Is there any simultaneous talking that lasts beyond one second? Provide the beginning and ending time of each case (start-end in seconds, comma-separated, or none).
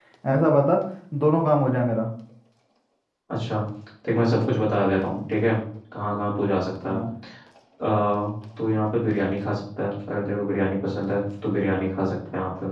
none